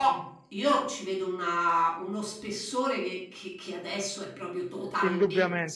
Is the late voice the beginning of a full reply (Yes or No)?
Yes